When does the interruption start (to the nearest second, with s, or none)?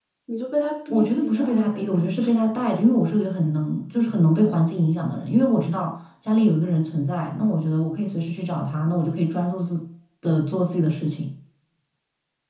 1 s